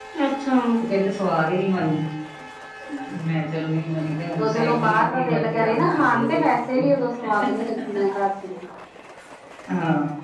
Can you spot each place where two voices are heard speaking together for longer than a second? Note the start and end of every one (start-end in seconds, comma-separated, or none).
4.4-6.4